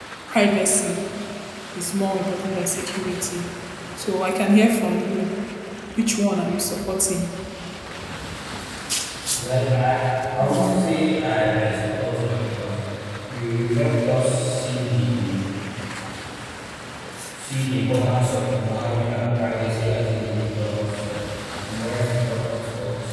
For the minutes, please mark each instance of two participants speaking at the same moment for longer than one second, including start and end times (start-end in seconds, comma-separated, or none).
none